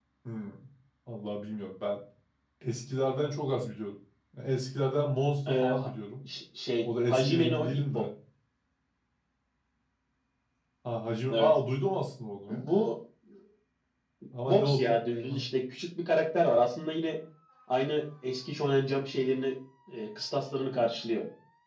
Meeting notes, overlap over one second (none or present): present